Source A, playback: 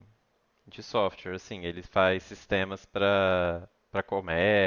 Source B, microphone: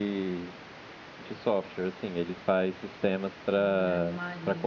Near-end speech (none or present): present